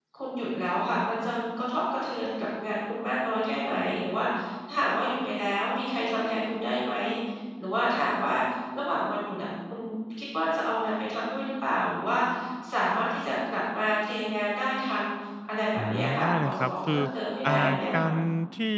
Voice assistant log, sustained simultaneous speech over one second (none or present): present